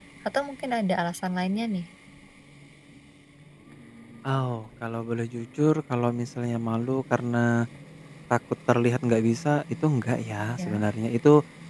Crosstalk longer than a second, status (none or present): none